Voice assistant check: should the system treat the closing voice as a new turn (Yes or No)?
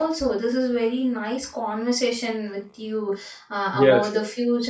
No